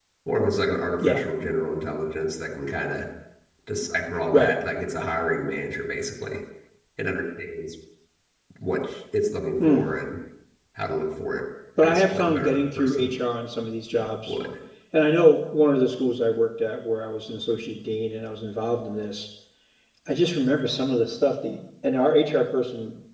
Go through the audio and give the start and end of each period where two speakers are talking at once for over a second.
11.8-13.1

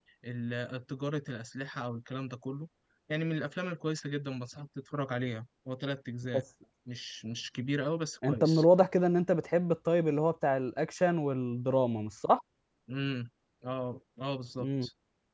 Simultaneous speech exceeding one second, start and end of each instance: none

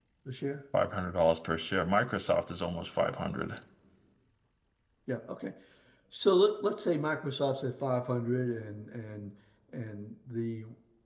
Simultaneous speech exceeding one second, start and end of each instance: none

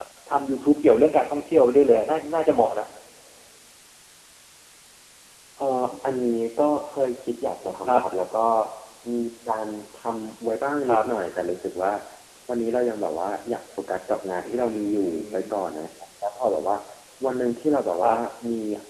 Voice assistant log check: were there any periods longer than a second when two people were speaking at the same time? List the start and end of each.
14.4-15.7

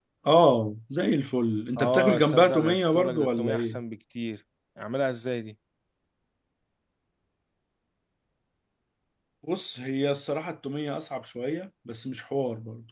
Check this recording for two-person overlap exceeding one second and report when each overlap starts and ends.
1.8-3.8

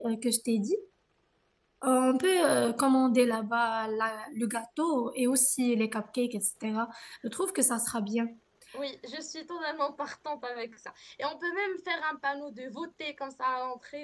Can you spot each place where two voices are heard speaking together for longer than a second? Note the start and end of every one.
none

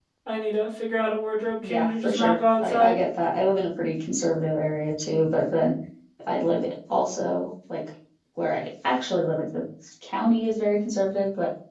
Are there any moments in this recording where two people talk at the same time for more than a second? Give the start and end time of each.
1.6-3.0

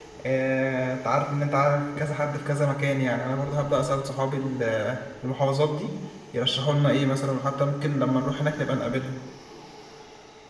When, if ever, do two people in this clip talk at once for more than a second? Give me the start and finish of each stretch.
none

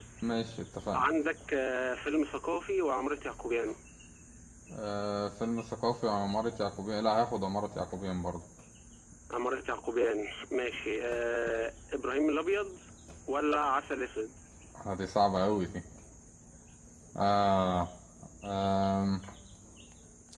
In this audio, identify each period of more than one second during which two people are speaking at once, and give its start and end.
none

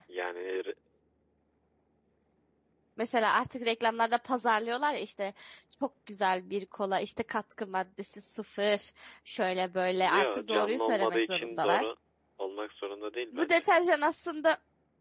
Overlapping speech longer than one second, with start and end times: 10.0-11.9

